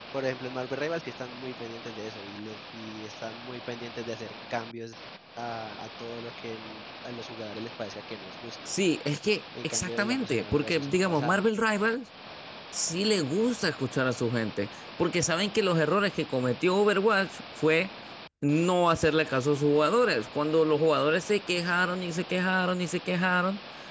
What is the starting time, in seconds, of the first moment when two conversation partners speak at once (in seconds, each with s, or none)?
9.6 s